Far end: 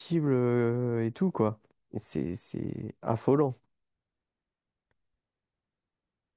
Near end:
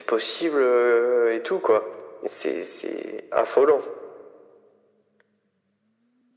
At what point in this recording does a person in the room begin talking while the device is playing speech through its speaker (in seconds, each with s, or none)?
none